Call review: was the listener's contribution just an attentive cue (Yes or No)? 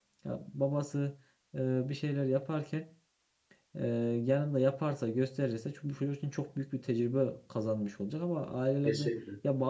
Yes